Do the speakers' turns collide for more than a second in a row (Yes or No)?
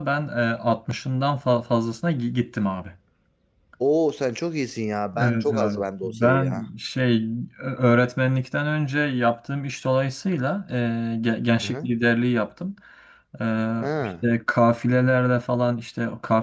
Yes